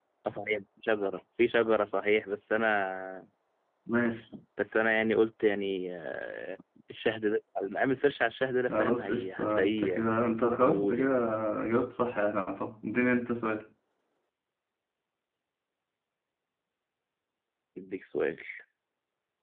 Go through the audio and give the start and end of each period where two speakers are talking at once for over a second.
8.7-10.1

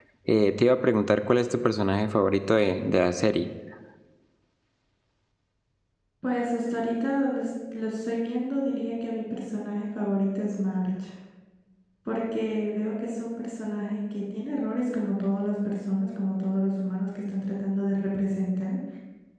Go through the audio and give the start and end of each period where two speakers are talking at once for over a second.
none

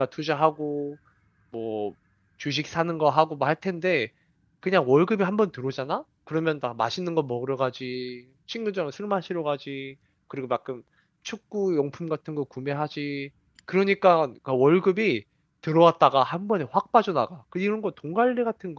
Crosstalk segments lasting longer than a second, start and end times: none

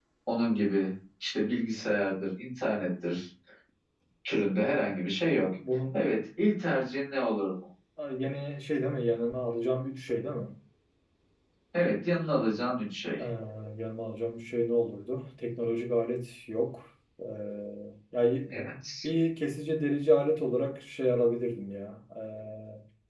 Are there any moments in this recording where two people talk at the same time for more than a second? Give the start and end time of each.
none

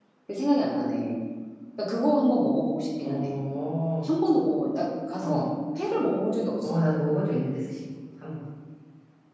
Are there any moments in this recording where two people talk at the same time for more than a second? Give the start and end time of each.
none

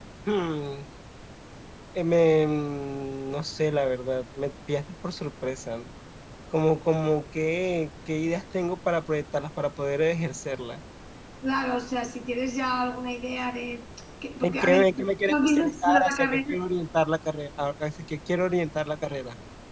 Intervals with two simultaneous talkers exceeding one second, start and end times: 14.4-16.4

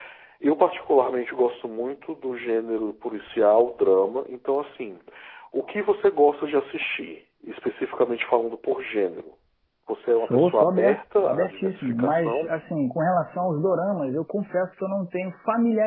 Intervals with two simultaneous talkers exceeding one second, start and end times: 10.2-12.6

